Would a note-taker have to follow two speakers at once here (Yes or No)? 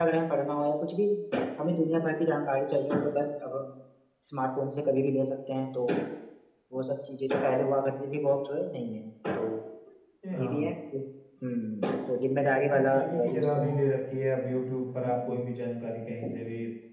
Yes